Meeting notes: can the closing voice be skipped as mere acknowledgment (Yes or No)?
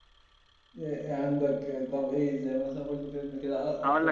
No